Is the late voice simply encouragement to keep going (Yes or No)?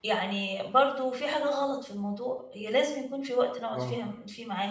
Yes